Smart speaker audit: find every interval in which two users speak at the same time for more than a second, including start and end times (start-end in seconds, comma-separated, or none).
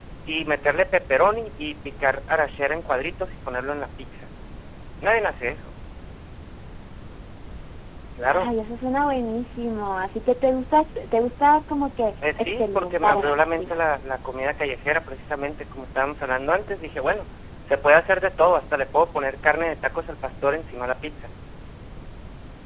12.4-13.8